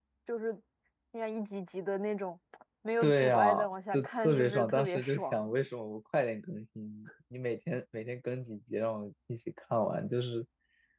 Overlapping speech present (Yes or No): Yes